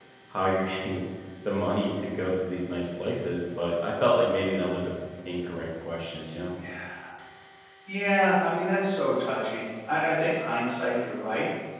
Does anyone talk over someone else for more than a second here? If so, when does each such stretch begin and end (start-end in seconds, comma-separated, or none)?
none